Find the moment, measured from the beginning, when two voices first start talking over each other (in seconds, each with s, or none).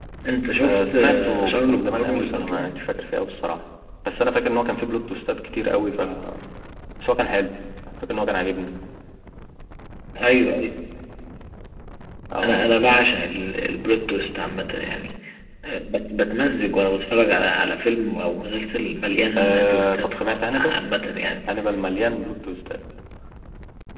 0.6 s